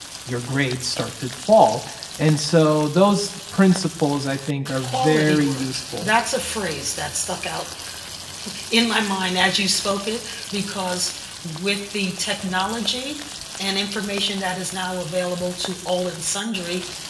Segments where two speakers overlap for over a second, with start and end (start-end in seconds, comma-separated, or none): 4.8-6.1